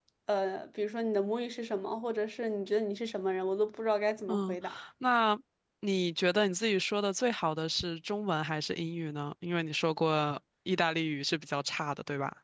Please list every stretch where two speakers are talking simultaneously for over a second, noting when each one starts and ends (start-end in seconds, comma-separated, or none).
none